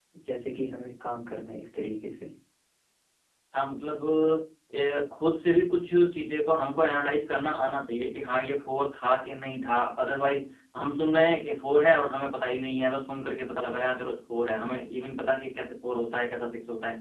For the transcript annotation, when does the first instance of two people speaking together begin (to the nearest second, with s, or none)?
none